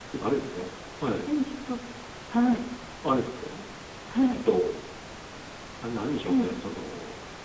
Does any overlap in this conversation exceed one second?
No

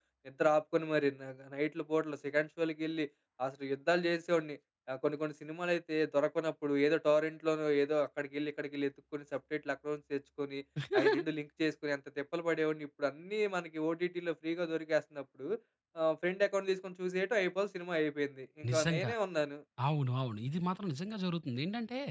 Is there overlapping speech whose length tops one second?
No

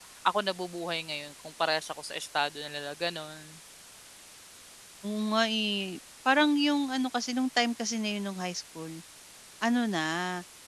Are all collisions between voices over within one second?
Yes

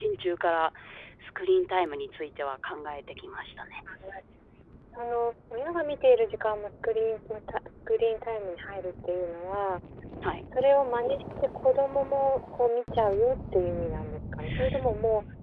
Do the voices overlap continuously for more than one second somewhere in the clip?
No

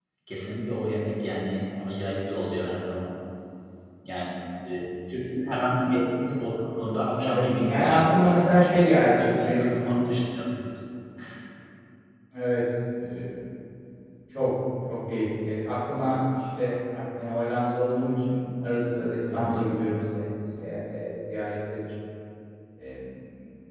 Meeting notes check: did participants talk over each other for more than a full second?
Yes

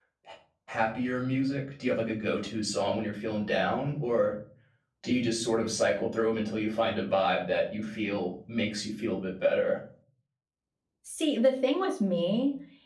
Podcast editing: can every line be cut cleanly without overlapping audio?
Yes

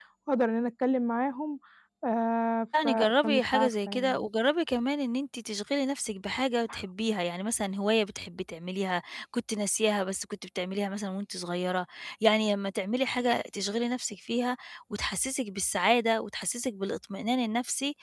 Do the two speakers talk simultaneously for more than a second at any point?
Yes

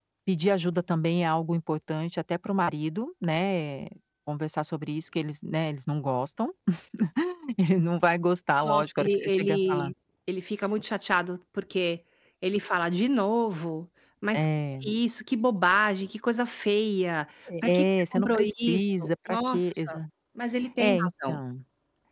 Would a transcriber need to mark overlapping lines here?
Yes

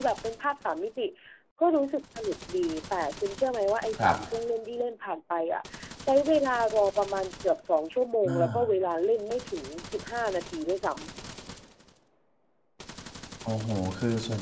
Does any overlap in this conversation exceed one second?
No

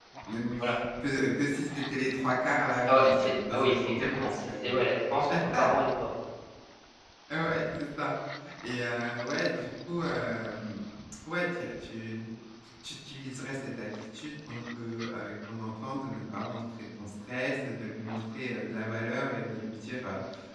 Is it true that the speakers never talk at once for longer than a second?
No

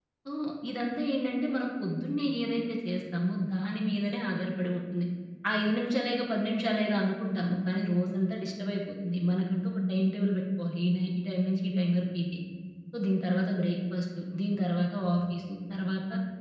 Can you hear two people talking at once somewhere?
No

